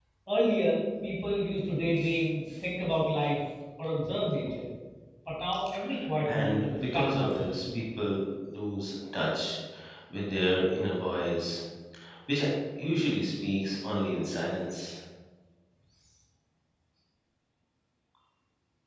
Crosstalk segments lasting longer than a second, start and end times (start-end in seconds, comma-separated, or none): 6.2-7.8